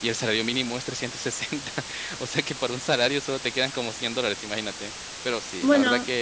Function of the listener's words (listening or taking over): listening